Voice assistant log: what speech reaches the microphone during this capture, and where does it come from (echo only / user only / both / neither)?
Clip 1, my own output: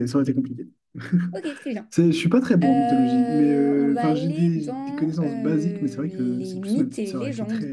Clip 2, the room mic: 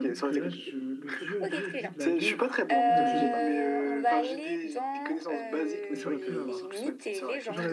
both